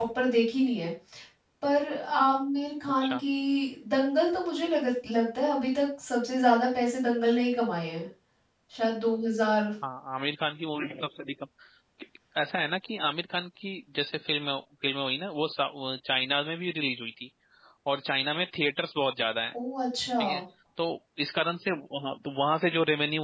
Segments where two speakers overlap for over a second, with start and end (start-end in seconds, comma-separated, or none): none